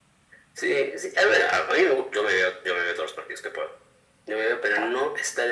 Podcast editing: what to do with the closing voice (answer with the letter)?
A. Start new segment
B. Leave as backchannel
B